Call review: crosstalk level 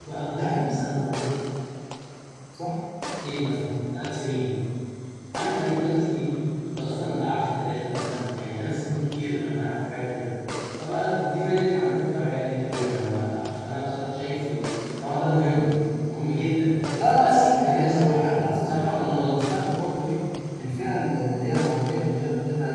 present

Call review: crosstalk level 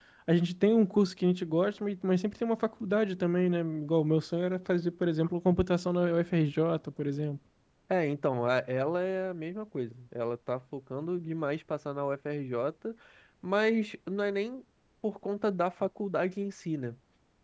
none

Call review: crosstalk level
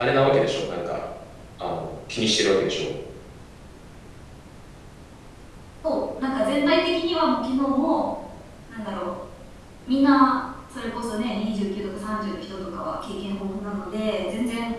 none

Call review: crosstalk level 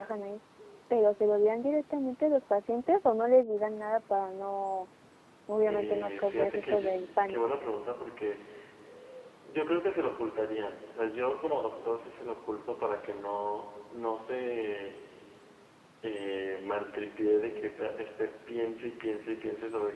present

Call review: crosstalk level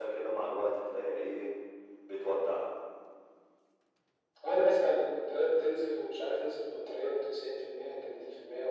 none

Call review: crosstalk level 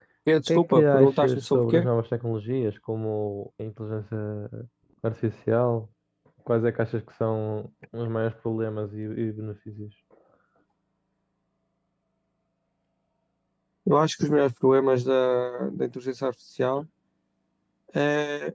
present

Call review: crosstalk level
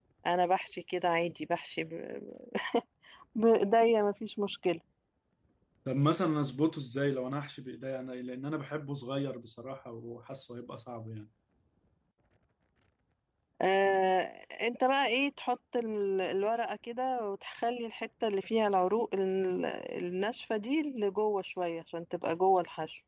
none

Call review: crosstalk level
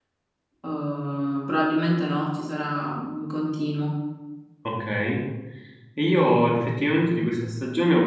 none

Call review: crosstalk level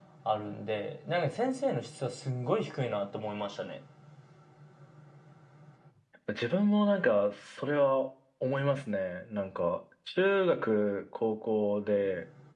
none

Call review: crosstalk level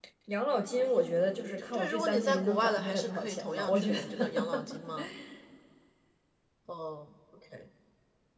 present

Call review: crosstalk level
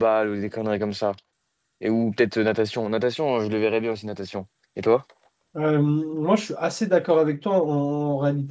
none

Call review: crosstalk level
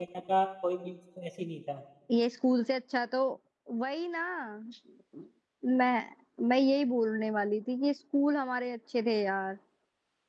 none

